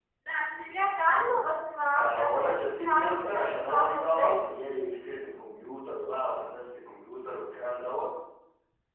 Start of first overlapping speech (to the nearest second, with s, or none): 2 s